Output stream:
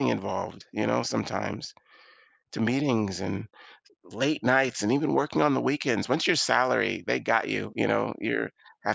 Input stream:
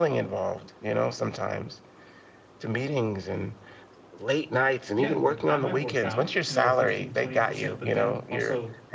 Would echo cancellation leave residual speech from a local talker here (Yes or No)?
Yes